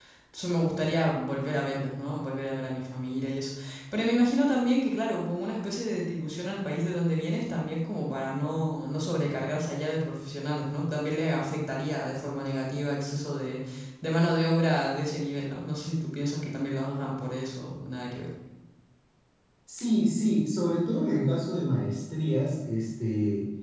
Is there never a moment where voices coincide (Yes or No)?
Yes